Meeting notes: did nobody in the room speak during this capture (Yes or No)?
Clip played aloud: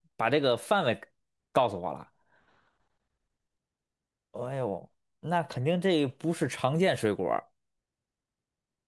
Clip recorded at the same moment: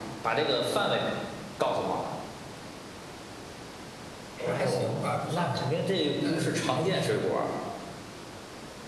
No